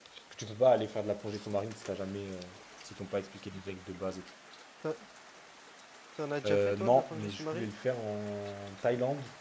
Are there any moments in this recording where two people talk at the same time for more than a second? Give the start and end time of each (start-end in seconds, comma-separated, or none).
6.5-7.7